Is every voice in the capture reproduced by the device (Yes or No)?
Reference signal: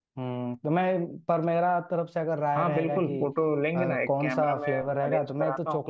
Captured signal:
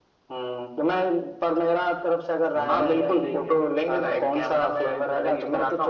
No